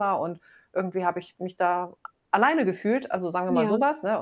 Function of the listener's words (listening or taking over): listening